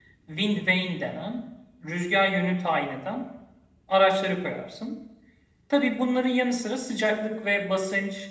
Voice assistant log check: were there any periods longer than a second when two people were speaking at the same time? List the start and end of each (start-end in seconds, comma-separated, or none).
none